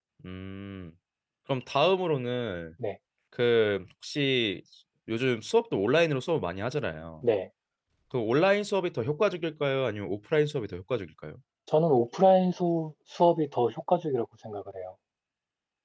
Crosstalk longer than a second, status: none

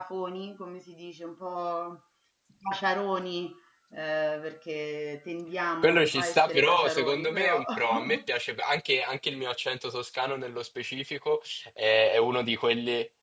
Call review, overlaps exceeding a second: present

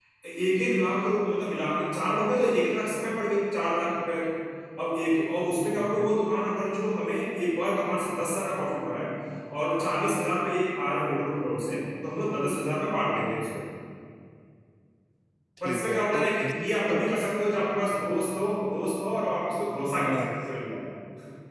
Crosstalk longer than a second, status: present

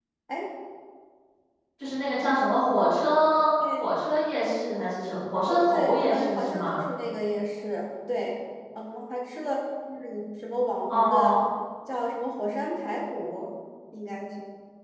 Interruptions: present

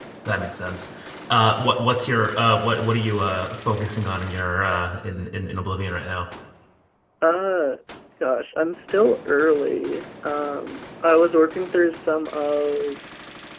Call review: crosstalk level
none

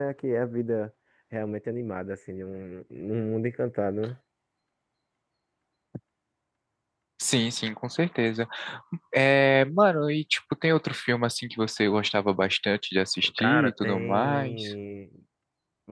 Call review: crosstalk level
present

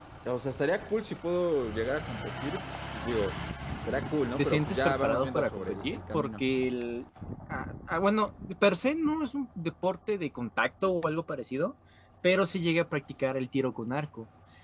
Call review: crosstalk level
present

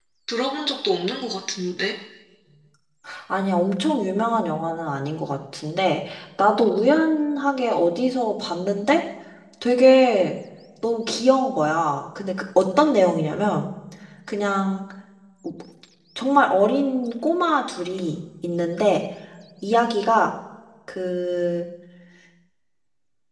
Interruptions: none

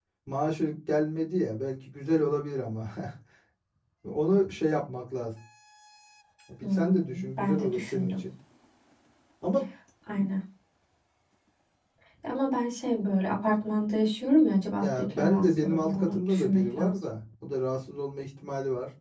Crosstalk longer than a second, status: present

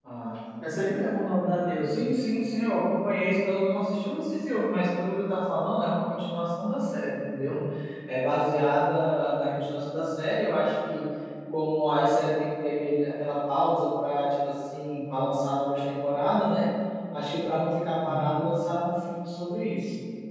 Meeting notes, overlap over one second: none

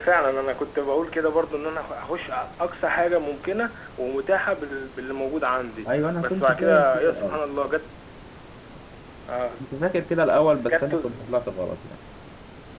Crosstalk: present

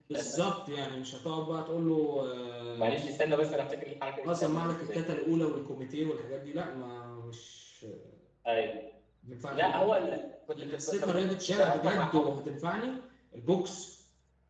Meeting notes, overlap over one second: present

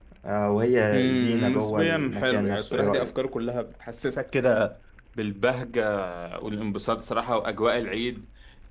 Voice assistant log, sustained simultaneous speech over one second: present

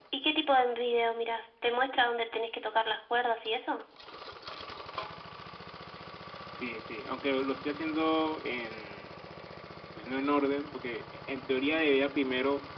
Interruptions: none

